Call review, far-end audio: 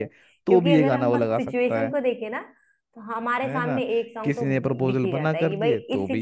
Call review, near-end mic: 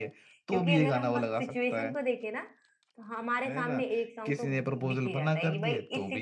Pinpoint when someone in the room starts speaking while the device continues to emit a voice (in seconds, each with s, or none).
none